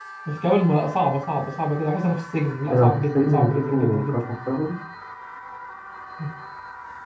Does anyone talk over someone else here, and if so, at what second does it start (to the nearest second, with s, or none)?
3 s